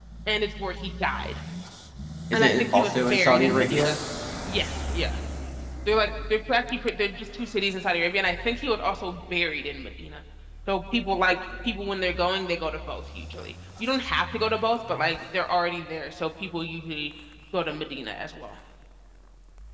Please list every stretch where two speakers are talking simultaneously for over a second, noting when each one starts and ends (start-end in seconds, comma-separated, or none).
2.3-4.0